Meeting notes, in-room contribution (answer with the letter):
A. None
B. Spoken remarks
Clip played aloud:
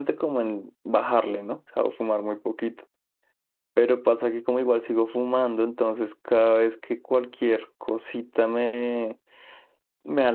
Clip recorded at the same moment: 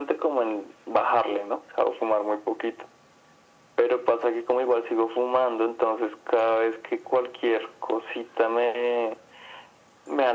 A